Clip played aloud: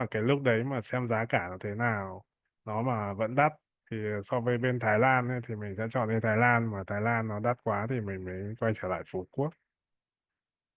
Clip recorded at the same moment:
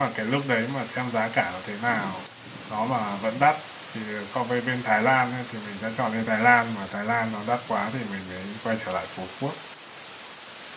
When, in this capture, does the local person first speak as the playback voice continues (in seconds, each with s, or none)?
none